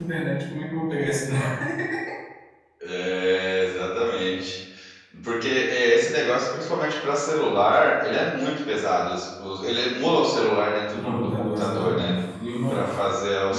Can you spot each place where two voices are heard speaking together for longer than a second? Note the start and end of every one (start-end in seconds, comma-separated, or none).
10.9-12.1